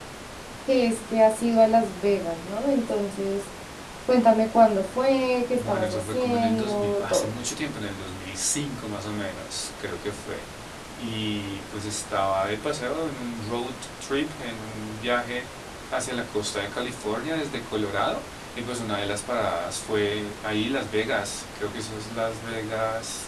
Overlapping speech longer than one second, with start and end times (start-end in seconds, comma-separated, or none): 5.6-7.3